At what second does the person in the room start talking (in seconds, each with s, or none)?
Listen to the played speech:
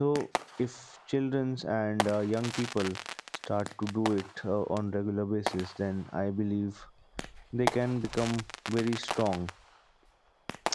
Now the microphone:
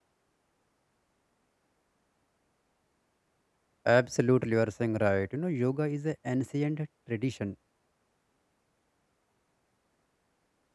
3.9 s